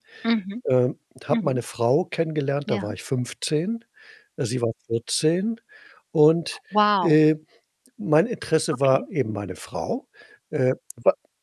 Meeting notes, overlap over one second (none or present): none